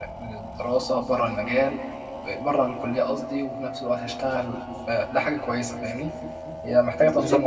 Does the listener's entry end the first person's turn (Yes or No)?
Yes